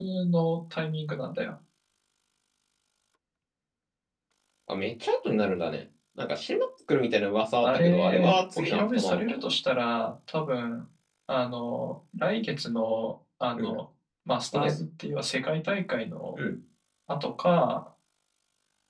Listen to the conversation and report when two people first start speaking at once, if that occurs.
7.6 s

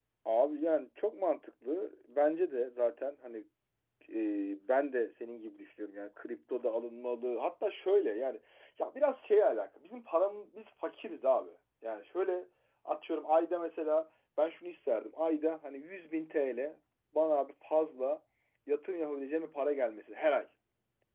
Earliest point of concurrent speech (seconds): none

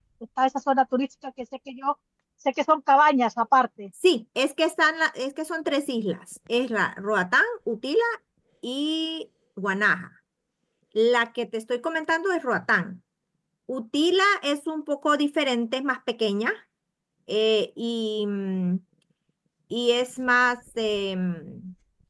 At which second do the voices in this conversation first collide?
none

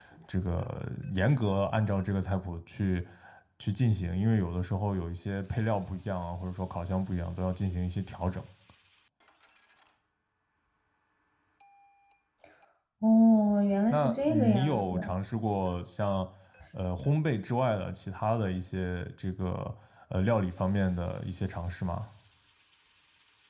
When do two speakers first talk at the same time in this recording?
13.9 s

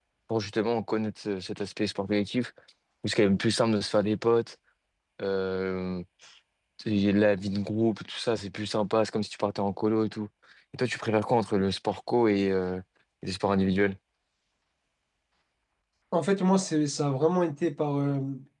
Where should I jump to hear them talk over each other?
none

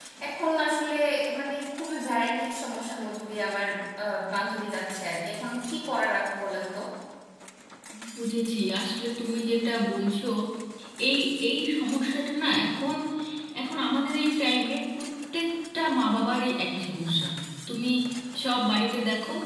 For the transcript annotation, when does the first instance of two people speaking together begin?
none

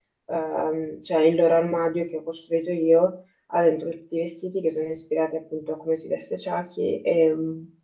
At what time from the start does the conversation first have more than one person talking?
none

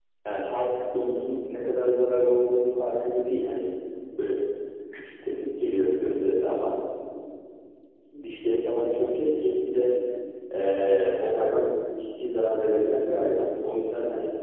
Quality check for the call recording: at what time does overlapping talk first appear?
none

